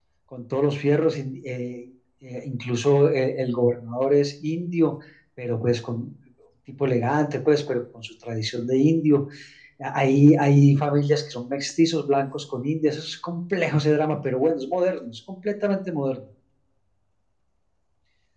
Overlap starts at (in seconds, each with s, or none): none